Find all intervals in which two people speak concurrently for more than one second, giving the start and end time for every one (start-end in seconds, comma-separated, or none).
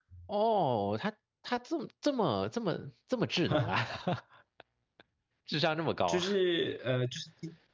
none